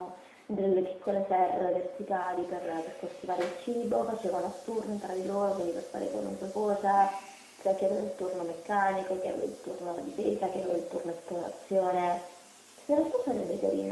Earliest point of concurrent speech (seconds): none

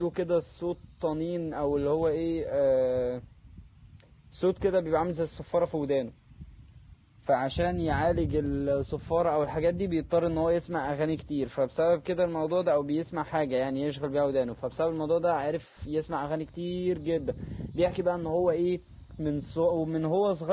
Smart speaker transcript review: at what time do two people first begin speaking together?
none

